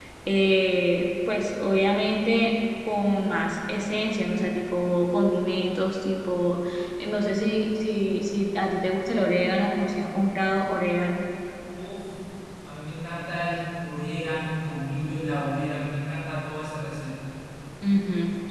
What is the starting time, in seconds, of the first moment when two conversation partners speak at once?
none

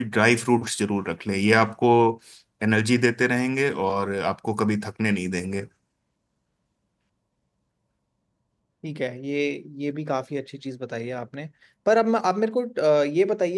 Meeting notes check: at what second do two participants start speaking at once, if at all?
none

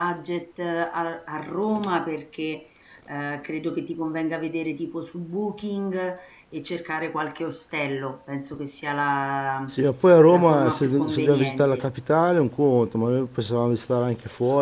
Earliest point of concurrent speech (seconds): 10 s

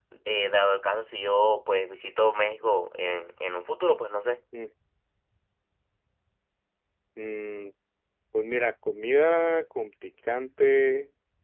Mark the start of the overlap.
none

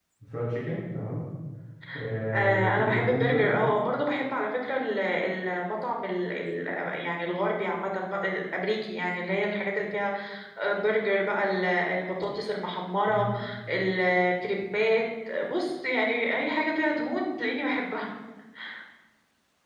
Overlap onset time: 2 s

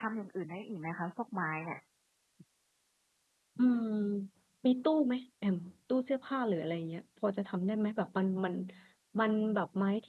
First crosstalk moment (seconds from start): none

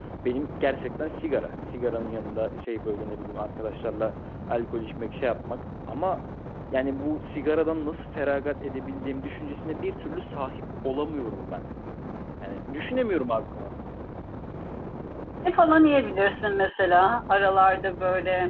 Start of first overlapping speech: none

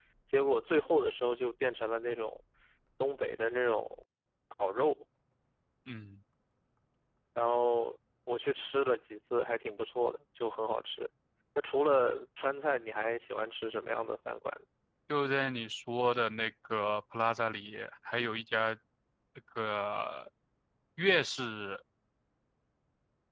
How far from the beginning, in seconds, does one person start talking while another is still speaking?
none

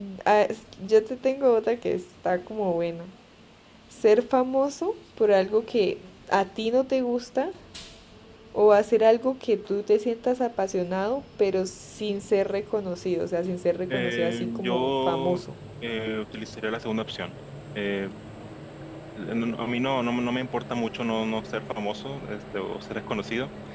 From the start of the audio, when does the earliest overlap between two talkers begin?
14 s

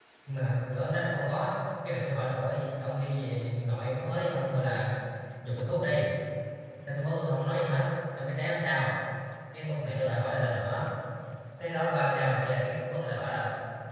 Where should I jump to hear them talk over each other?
none

